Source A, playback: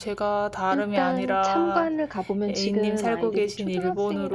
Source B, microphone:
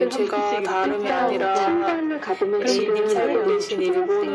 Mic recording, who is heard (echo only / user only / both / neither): both